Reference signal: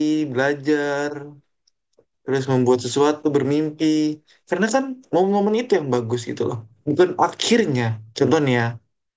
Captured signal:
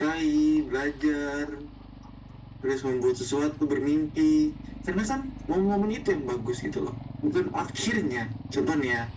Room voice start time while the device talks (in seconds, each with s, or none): none